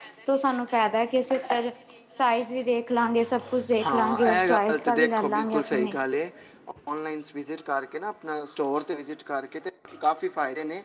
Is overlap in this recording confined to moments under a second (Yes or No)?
No